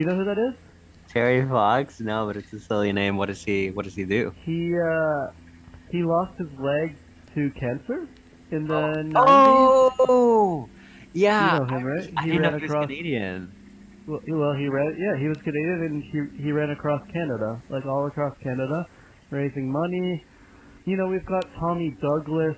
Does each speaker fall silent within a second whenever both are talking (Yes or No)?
No